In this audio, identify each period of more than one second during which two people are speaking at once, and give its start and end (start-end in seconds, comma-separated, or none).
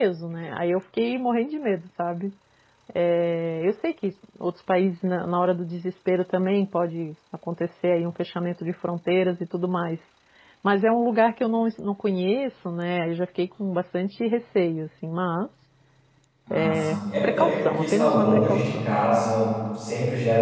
16.5-18.9